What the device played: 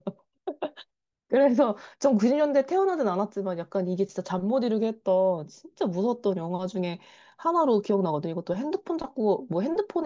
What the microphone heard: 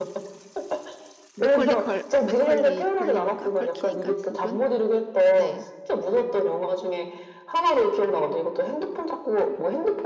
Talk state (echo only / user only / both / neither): both